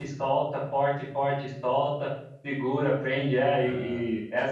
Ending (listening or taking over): listening